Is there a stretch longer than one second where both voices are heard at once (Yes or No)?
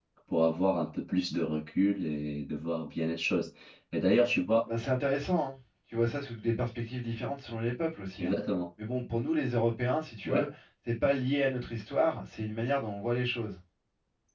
No